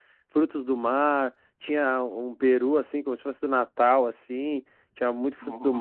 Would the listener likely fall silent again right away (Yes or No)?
Yes